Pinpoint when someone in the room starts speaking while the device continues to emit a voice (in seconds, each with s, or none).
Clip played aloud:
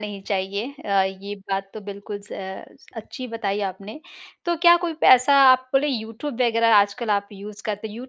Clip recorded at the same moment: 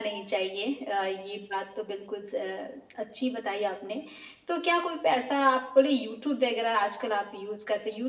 none